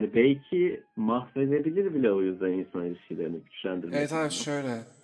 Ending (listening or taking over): taking over